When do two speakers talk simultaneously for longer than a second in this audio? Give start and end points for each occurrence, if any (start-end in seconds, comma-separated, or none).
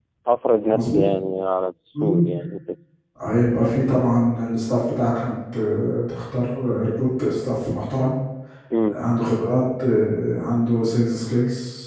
none